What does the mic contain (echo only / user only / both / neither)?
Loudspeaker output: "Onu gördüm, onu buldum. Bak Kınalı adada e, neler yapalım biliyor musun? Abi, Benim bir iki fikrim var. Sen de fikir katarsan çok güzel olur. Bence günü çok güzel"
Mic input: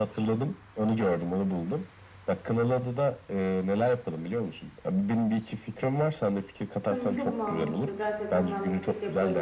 both